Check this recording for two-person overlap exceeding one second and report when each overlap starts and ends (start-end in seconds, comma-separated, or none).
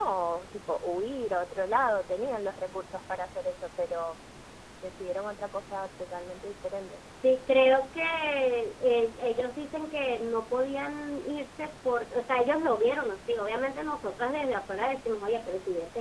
none